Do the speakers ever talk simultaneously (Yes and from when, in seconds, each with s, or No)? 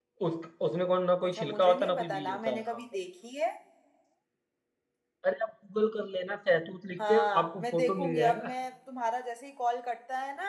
Yes, from 1.2 s